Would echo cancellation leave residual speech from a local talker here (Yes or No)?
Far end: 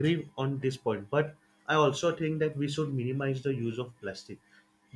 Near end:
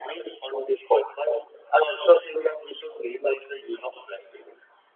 No